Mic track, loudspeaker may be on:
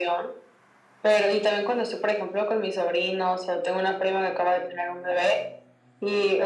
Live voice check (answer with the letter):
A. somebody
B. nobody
B